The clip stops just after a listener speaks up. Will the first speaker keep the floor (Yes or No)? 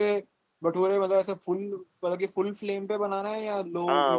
No